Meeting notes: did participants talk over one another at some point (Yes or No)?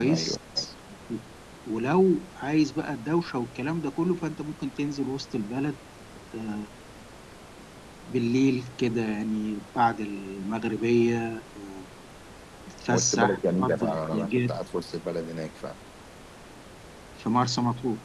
Yes